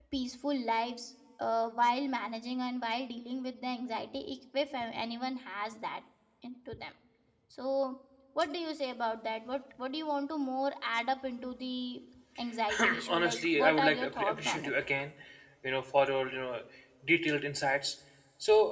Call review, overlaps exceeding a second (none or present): present